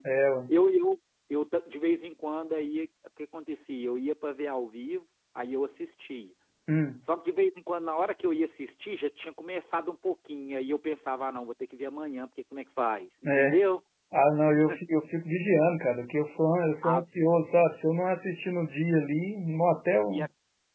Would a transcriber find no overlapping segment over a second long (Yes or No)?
Yes